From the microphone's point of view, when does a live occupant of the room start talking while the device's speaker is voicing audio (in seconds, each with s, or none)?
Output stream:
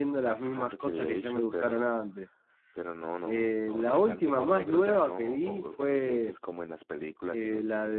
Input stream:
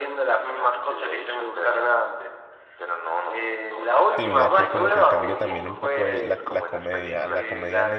4.2 s